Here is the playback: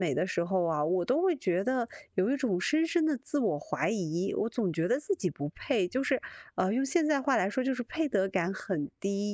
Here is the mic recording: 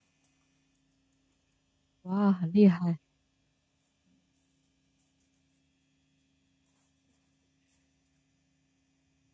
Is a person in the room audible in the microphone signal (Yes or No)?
Yes